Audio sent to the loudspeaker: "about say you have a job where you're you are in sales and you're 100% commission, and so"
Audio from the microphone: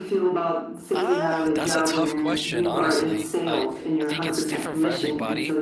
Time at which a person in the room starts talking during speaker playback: 0.9 s

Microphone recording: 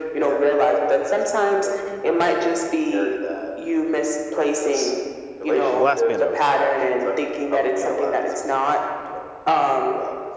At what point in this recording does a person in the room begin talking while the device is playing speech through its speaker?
5.7 s

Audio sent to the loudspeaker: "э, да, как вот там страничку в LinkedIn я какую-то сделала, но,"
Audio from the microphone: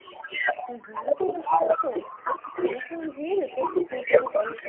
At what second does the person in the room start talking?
0.7 s

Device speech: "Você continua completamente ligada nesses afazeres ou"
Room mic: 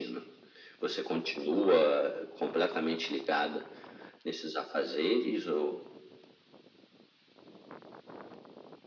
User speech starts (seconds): none

